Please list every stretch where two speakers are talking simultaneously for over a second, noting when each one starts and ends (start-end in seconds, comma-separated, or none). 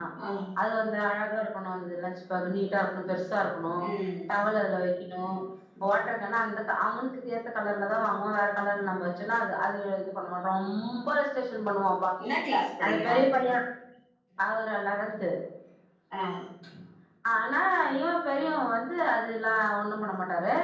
none